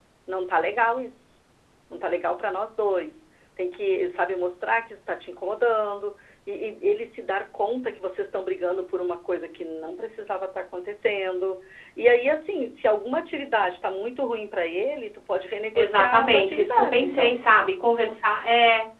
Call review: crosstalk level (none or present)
present